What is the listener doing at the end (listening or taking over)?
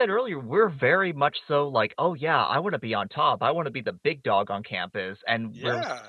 listening